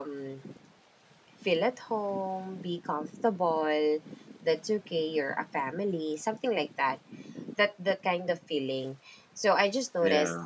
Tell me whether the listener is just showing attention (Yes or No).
Yes